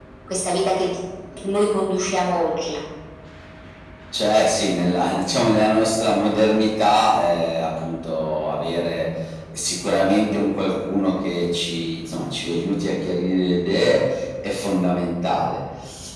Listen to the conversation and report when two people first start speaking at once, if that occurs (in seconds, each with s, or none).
none